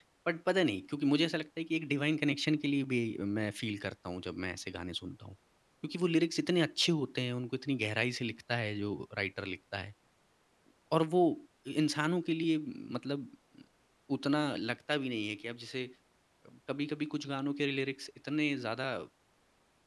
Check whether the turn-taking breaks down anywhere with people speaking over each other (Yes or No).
No